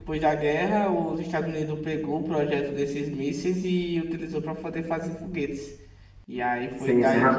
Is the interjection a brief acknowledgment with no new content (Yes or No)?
No